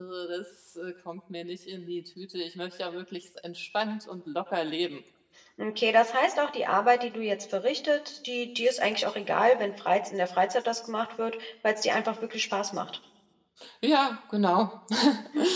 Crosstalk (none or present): none